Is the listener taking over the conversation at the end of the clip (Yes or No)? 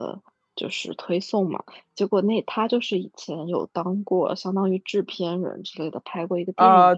Yes